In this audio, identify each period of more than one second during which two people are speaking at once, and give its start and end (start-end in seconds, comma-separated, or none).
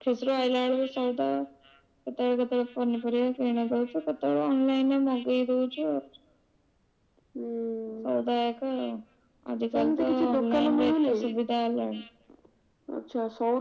9.7-11.2